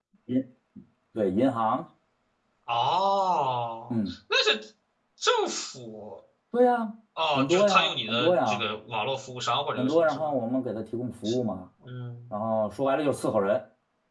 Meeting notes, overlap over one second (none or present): present